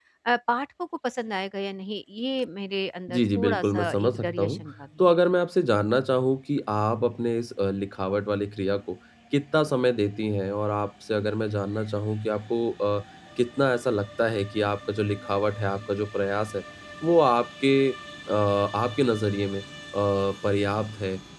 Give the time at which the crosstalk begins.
3.1 s

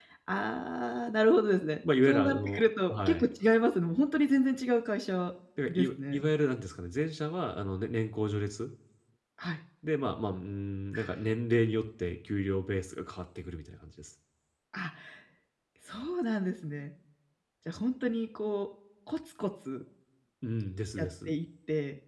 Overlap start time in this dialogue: 2.1 s

